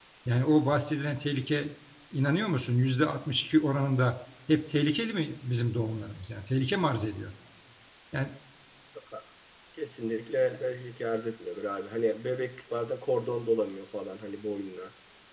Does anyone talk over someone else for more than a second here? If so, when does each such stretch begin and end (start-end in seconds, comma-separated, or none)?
none